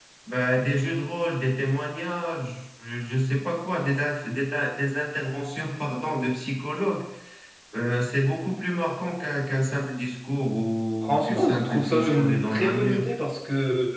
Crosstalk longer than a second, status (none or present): present